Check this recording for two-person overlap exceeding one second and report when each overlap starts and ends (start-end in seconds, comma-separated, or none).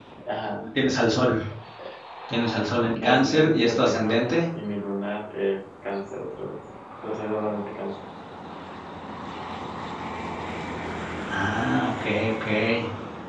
2.9-4.4